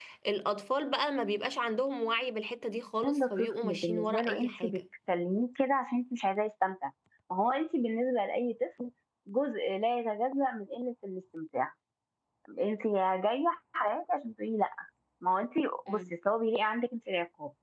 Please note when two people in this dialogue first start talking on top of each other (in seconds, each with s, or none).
3.0 s